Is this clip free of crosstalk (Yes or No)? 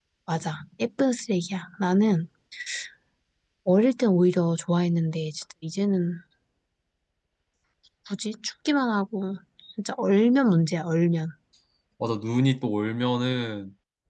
Yes